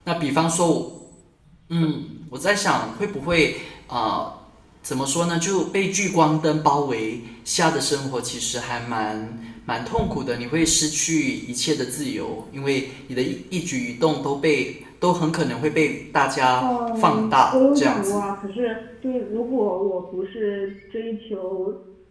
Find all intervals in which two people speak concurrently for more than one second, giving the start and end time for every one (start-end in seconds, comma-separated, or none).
16.6-18.3